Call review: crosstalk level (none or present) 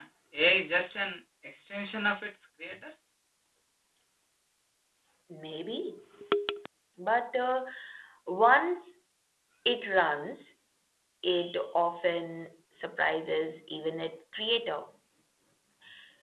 none